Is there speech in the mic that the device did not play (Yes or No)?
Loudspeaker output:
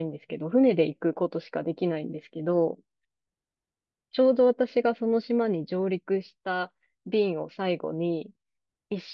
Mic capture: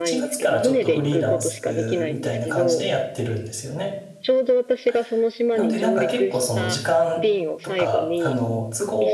Yes